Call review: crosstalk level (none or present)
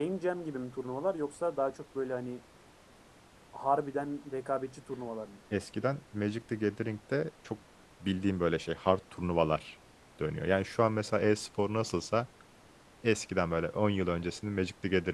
none